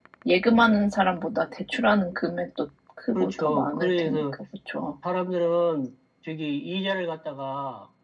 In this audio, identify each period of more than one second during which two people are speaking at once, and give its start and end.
3.1-4.4

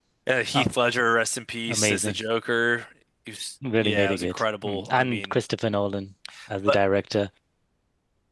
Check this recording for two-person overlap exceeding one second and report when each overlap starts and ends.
3.8-5.4

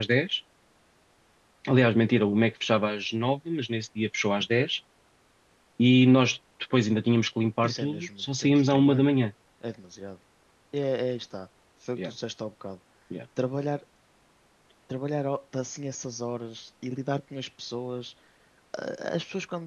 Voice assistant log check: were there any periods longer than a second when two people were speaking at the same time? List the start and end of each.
7.6-9.1

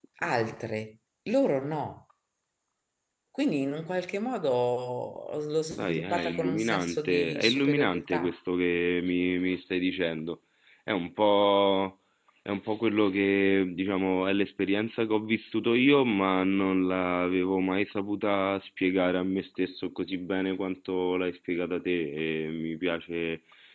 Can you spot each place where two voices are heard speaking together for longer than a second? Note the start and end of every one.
5.8-8.3

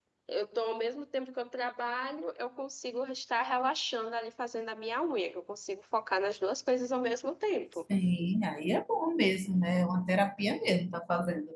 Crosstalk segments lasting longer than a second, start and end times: none

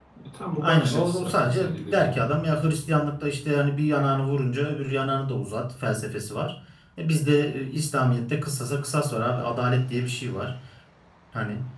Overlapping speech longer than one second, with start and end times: 0.6-2.3

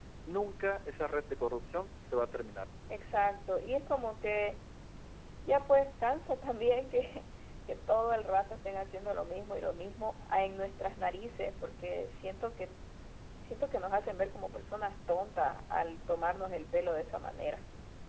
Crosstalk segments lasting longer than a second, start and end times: none

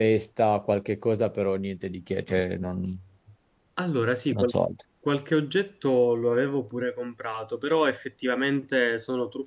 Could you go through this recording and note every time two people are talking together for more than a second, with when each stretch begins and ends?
none

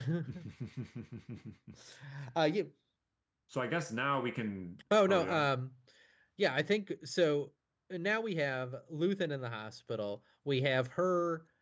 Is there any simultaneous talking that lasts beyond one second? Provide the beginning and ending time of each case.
none

